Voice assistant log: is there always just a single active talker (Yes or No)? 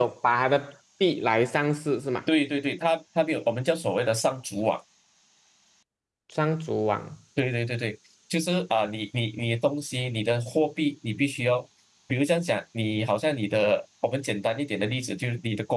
Yes